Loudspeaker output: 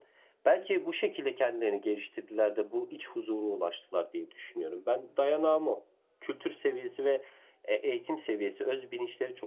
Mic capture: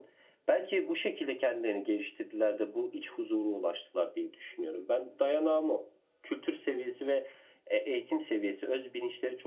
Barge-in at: none

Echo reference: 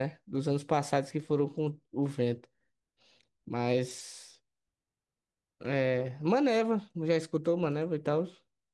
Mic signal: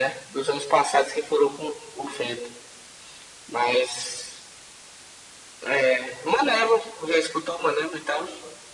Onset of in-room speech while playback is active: none

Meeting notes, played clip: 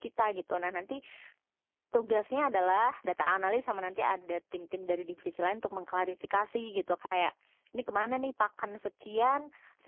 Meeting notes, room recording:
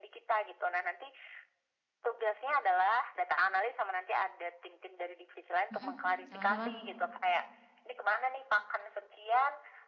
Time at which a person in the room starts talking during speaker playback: 5.7 s

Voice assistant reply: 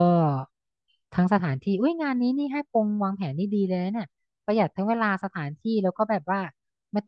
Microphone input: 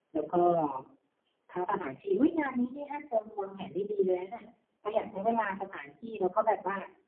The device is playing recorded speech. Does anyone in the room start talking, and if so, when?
none

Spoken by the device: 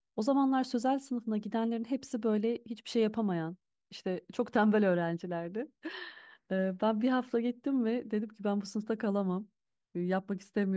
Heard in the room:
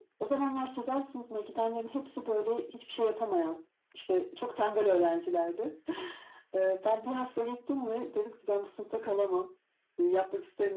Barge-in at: none

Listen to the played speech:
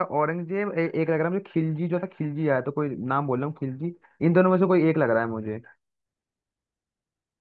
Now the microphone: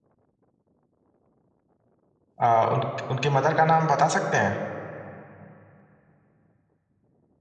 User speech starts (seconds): 2.4 s

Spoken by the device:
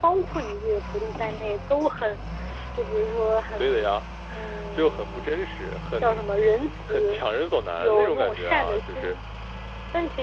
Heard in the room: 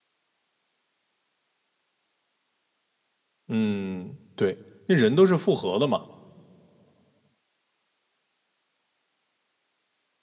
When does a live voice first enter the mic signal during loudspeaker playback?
3.5 s

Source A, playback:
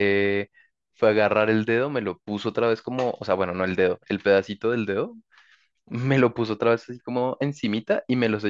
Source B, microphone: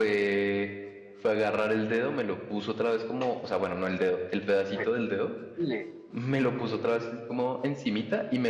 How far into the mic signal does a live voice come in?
4.7 s

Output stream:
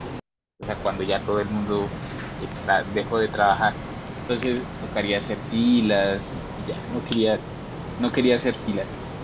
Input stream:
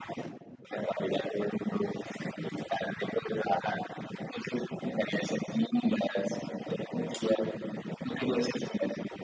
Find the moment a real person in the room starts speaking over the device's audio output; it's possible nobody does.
none

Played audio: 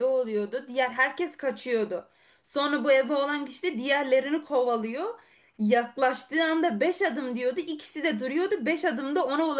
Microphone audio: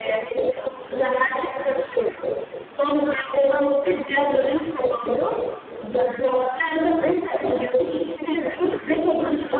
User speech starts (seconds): none

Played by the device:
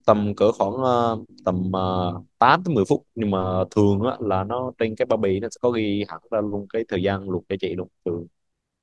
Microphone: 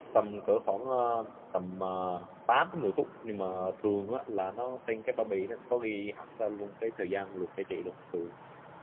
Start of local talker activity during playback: none

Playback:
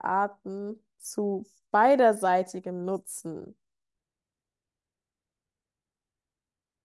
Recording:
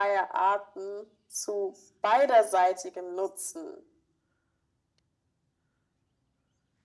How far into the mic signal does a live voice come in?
none

